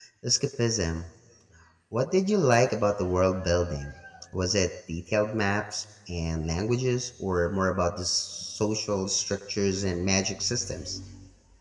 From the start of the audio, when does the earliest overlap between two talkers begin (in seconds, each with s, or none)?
none